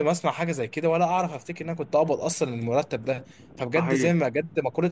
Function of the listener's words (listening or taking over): listening